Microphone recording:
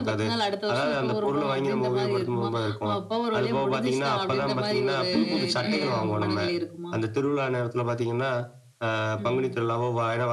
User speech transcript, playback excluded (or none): ம்ஹ்ம். ம், ம்,